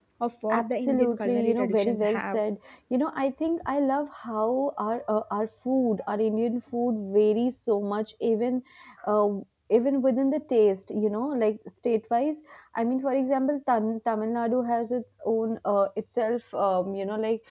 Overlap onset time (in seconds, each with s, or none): 0.5 s